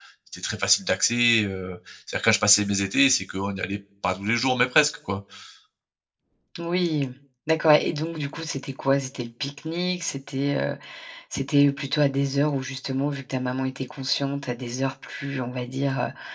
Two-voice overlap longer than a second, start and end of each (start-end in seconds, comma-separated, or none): none